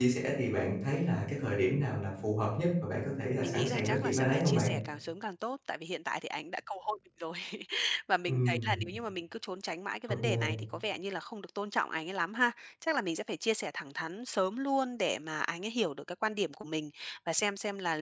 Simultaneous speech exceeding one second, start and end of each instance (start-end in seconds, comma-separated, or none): 3.4-4.7